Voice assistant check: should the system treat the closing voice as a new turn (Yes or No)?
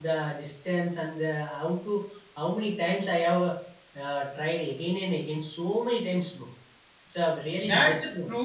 Yes